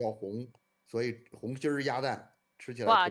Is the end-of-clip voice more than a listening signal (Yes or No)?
Yes